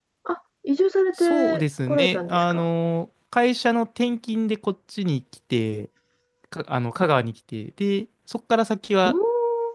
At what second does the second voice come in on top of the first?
1.2 s

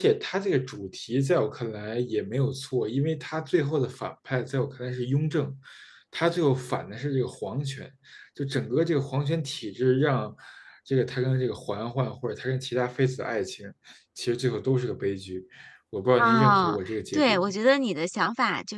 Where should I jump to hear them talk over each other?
16.2 s

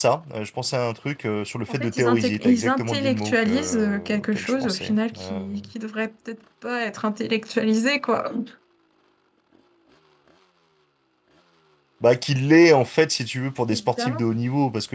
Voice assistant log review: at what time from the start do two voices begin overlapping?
1.7 s

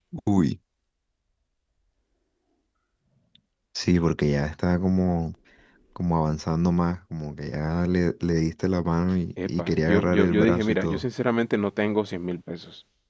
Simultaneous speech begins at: 9.4 s

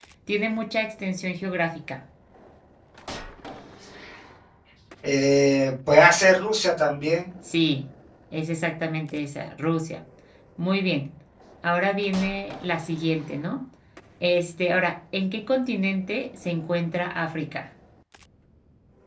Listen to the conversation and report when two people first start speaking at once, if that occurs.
none

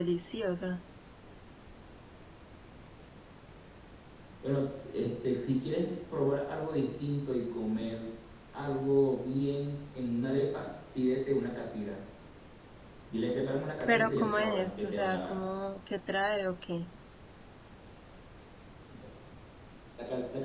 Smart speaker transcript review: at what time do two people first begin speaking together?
13.9 s

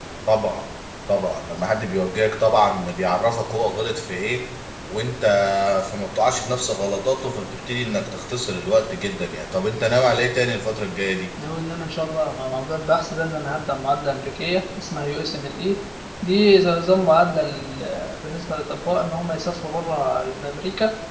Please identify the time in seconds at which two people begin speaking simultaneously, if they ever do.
none

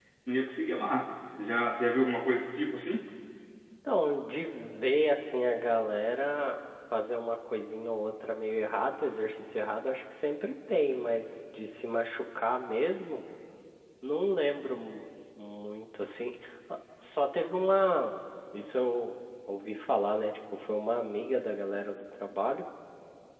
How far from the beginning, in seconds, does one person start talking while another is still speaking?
none

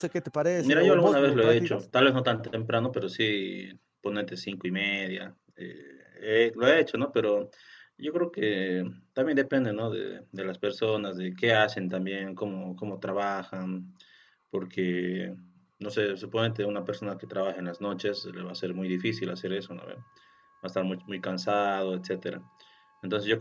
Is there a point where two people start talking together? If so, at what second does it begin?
0.6 s

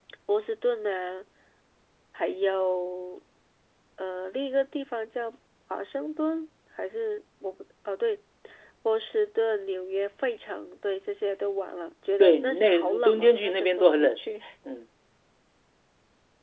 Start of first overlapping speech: 12.2 s

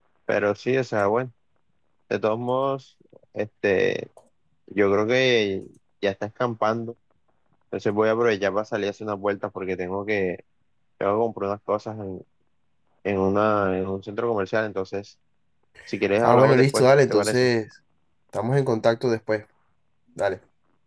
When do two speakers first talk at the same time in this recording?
16.2 s

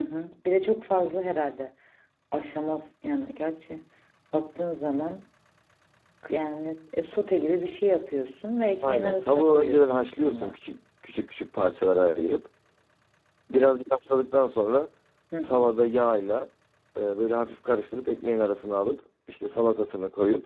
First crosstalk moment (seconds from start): 8.8 s

